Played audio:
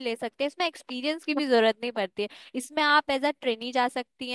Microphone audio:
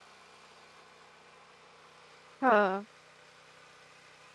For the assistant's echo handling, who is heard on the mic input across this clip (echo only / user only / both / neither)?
user only